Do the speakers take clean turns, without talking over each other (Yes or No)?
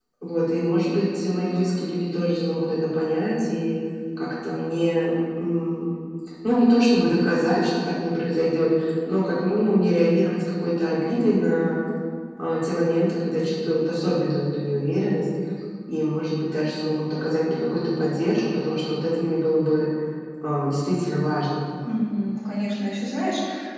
Yes